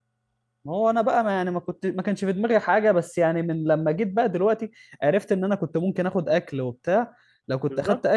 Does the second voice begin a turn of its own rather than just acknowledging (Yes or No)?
No